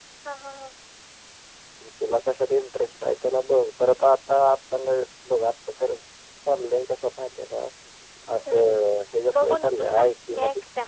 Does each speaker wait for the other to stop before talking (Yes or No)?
No